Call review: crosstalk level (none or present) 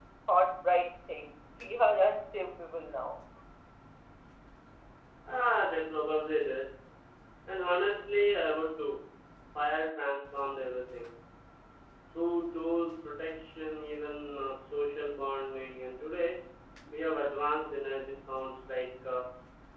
none